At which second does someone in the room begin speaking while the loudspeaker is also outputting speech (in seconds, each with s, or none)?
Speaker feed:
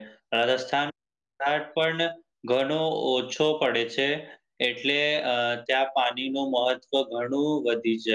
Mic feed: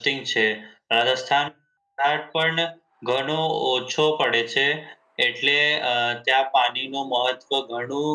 none